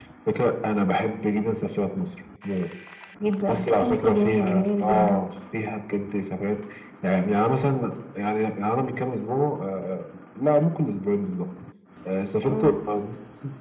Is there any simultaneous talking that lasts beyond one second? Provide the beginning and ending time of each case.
3.5-5.2

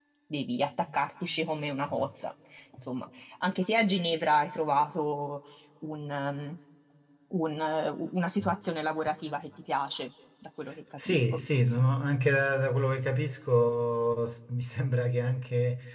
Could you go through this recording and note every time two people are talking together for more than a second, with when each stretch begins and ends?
none

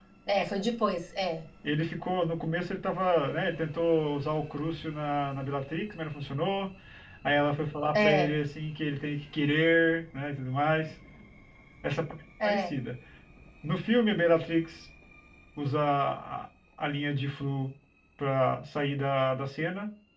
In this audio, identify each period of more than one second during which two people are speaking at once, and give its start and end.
none

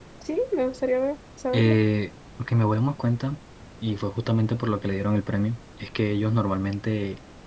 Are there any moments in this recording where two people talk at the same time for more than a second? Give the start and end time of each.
none

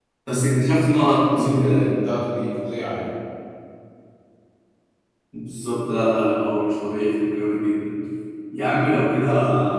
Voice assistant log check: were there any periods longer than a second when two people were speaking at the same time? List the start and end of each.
none

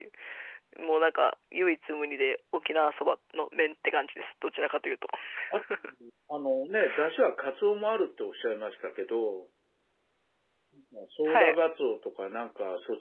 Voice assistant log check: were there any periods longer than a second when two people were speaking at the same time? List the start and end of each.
none

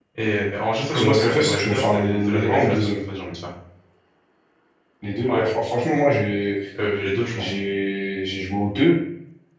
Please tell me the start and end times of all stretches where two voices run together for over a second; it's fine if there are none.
1.0-2.9

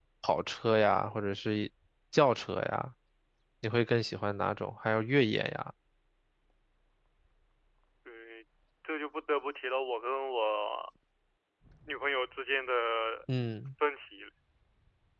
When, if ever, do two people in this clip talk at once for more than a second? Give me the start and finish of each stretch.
none

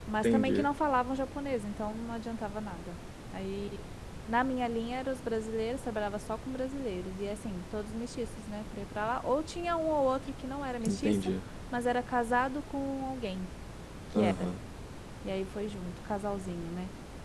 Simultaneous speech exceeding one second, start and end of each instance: none

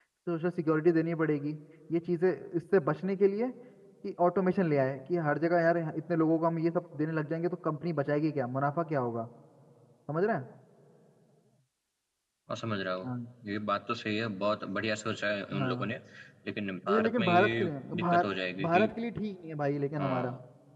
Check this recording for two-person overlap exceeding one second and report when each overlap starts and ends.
16.9-18.2

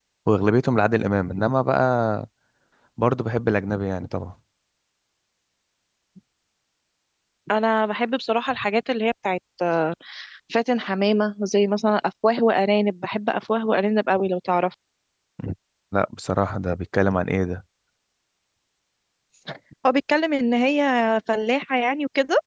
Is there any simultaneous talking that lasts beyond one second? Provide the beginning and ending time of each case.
none

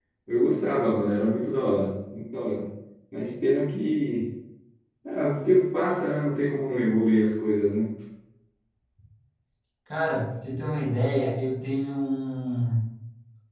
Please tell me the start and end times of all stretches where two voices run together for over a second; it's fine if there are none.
none

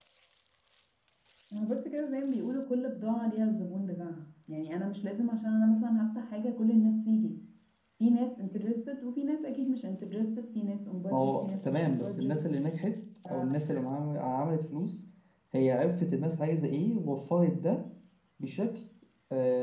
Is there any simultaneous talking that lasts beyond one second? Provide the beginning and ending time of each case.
11.1-12.3

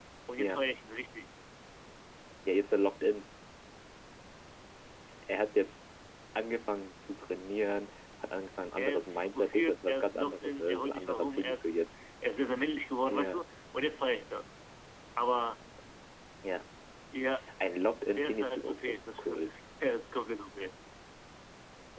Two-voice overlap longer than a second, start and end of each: 8.8-11.8, 18.1-19.5

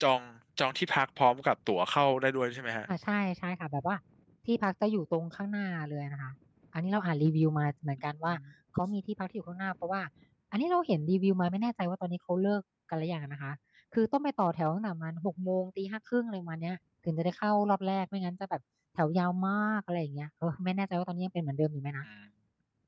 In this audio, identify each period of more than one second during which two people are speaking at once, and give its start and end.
none

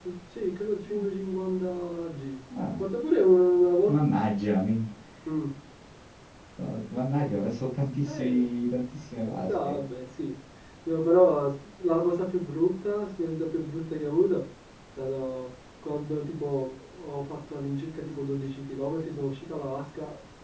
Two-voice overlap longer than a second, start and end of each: none

